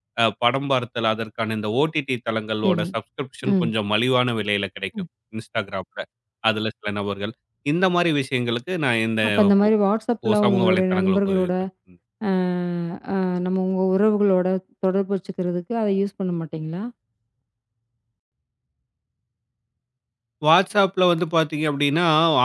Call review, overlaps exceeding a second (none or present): present